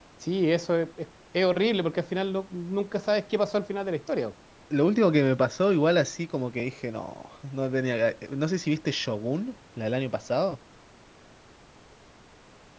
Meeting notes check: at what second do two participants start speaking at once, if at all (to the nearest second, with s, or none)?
none